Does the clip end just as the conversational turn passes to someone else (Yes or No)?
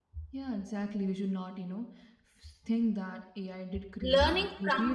Yes